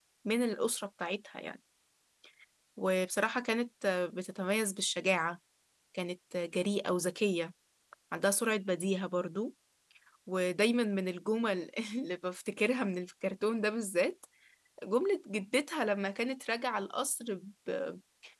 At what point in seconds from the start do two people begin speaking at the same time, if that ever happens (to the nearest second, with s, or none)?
none